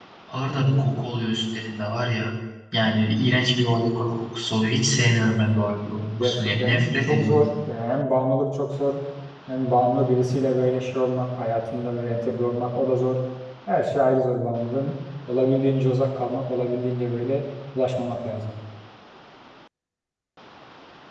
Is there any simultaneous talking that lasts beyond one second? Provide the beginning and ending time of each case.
5.9-7.5

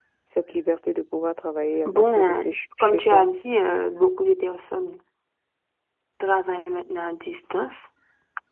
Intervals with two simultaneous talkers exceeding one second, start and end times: 1.9-3.2

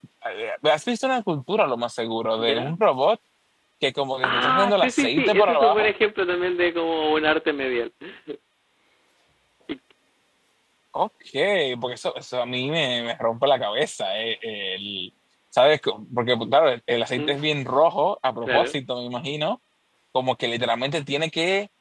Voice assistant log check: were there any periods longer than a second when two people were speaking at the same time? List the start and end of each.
4.2-5.9

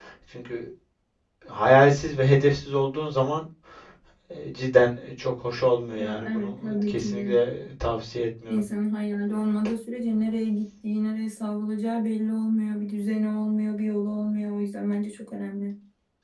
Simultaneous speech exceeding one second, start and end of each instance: 6.0-7.3

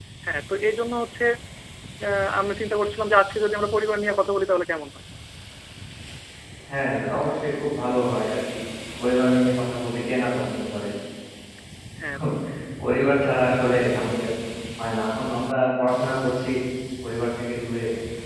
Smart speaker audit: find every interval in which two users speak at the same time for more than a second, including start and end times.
none

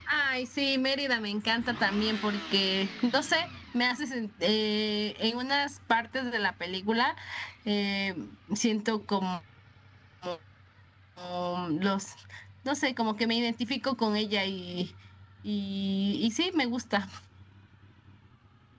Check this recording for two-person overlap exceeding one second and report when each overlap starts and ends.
none

